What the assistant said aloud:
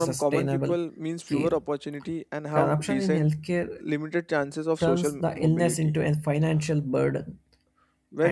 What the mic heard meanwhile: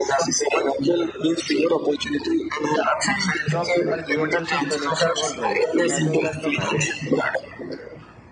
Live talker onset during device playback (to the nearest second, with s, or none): 3 s